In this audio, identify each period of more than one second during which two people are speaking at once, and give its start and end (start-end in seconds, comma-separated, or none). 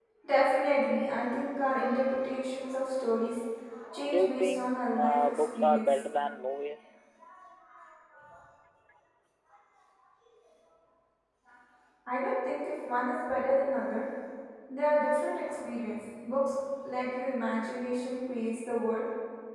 4.1-6.0